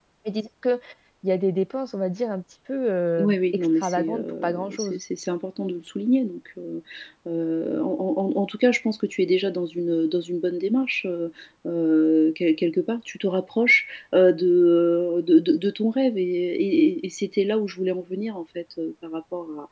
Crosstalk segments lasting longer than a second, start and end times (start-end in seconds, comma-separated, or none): 3.2-5.0